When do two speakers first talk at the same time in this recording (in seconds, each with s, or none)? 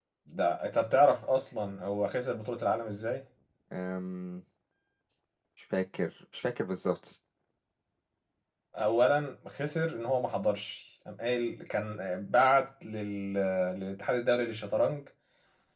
none